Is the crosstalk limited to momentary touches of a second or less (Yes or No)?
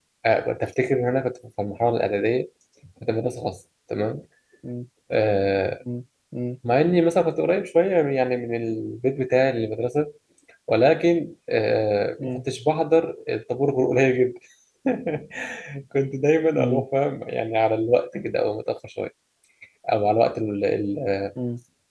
Yes